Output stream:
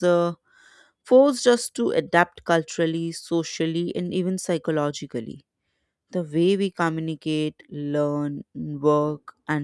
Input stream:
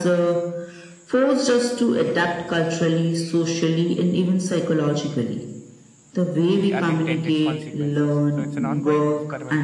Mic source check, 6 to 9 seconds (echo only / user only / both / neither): both